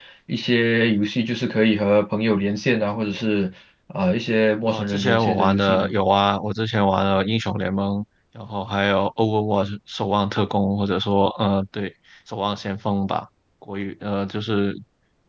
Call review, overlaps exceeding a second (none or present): present